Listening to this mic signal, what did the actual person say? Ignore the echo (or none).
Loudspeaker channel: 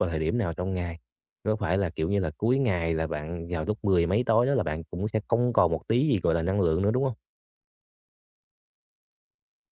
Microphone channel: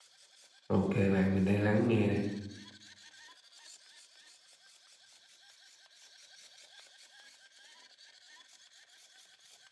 ok bạn, mình đang lắng nghe đây.